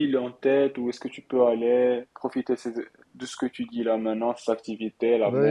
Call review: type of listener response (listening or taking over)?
taking over